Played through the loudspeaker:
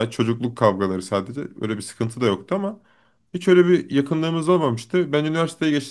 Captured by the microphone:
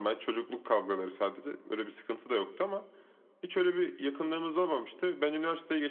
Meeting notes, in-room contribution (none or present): none